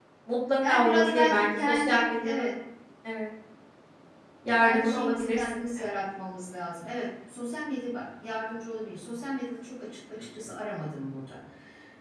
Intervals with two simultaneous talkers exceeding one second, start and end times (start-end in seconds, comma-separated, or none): 0.6-2.5, 4.6-6.0